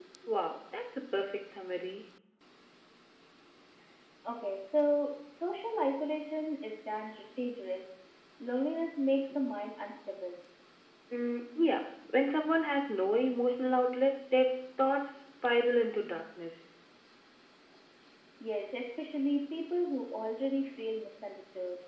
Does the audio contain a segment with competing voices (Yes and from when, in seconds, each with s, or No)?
No